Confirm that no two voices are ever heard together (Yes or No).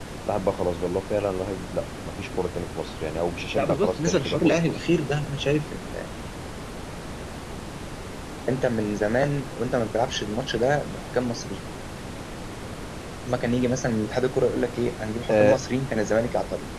No